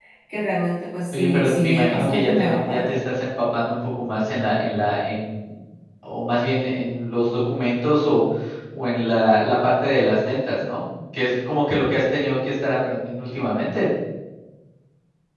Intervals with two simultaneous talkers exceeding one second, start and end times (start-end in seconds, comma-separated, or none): 1.1-2.9